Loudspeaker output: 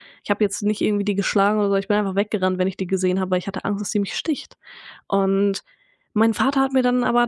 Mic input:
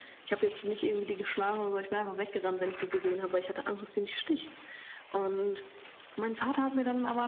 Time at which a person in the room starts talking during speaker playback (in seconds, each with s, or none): none